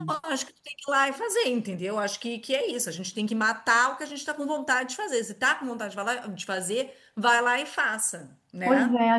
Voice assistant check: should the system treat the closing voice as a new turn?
Yes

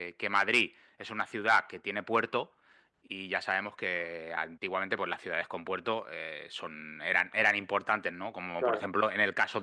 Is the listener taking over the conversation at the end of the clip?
No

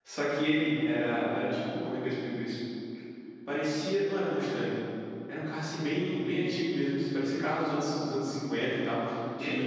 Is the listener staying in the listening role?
Yes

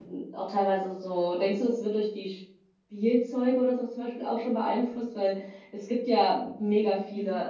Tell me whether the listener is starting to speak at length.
No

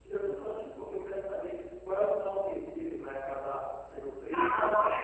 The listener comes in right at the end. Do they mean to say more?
Yes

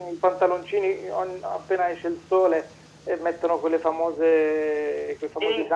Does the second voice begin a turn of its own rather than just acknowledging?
No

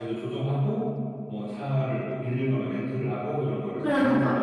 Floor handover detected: Yes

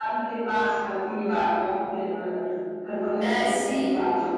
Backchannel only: No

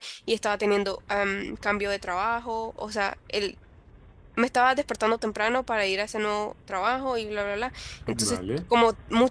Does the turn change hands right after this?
No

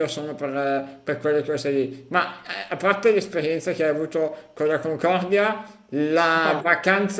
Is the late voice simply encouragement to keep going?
Yes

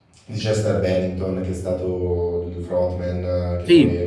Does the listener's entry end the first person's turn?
Yes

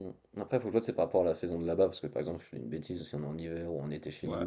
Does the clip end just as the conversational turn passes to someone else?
Yes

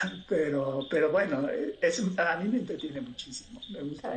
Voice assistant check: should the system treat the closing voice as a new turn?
Yes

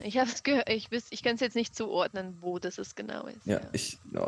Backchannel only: No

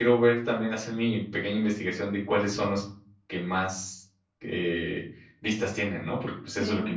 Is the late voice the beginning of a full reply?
Yes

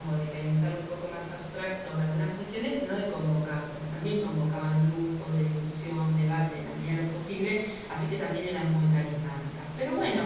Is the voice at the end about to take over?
No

